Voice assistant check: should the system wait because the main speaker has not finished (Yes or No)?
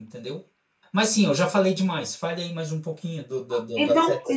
No